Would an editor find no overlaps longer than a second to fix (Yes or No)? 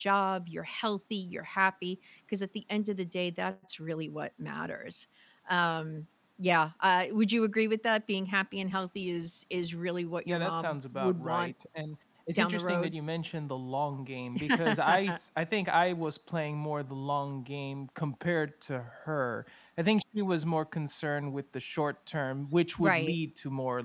No